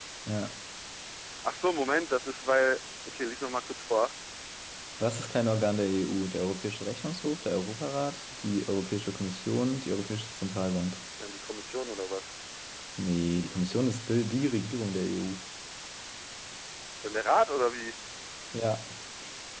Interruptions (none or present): none